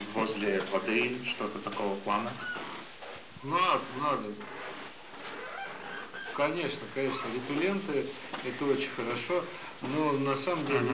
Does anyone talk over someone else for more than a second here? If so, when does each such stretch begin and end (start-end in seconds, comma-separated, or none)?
none